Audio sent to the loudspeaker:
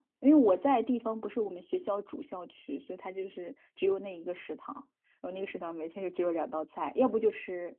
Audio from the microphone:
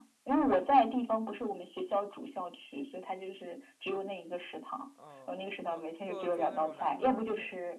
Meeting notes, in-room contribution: present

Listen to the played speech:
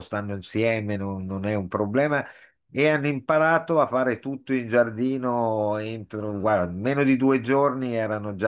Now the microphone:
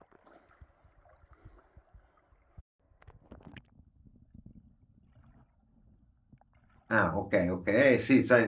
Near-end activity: present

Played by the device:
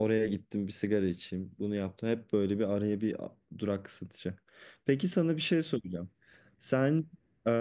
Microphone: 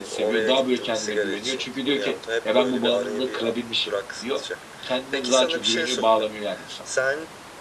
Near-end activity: present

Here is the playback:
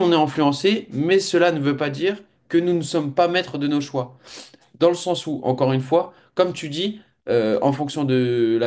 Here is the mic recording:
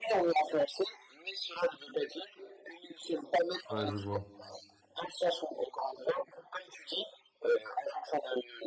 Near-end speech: present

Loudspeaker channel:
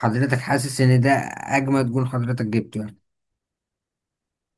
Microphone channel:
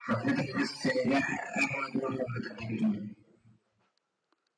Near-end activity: none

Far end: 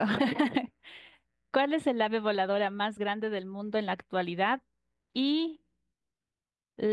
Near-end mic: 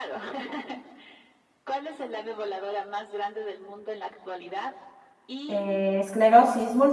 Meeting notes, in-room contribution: present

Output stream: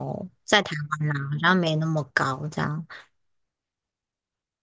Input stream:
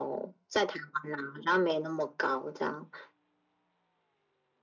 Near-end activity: none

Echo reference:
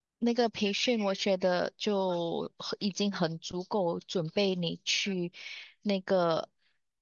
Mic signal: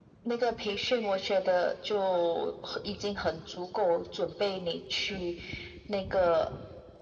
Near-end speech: none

